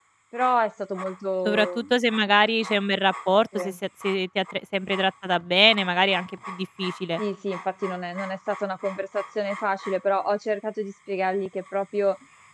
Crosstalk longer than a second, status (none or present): none